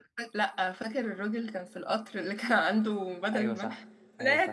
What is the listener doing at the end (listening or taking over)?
taking over